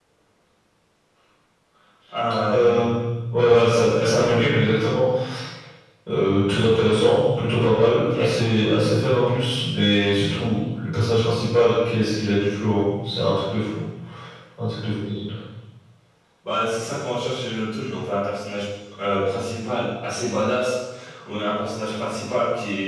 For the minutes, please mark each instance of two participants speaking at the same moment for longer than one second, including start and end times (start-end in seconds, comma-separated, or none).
none